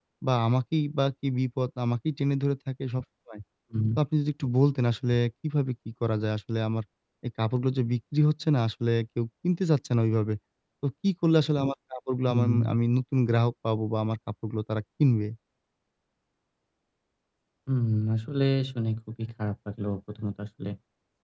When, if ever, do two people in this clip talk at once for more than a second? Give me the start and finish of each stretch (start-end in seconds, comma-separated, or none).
none